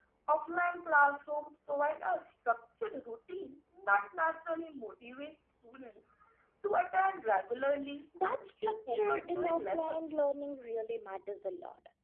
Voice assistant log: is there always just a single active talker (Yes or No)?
No